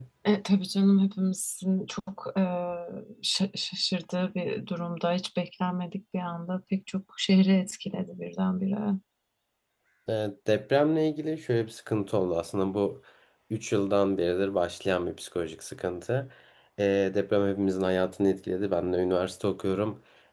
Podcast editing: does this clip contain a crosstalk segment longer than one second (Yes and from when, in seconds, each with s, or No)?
No